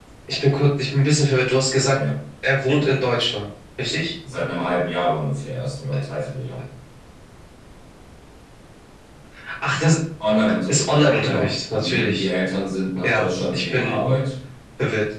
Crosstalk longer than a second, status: present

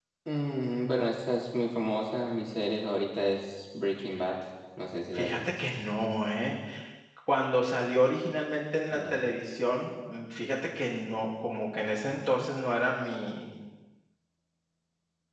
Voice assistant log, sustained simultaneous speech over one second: none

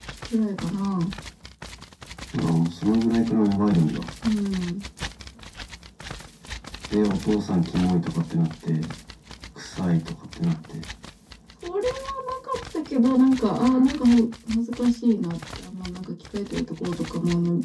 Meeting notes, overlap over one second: none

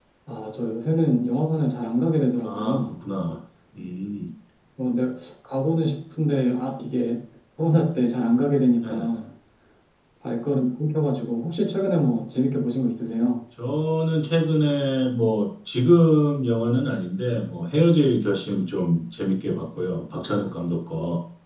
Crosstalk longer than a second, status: none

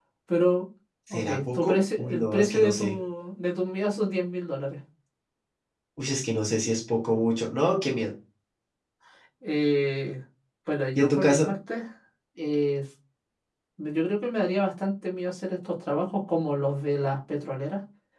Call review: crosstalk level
present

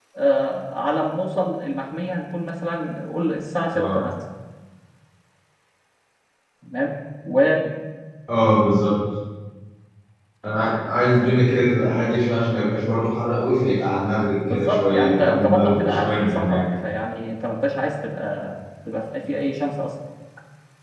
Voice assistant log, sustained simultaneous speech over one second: present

